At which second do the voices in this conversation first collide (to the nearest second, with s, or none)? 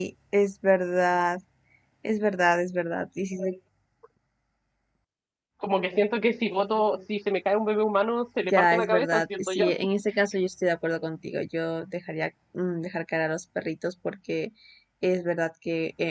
8 s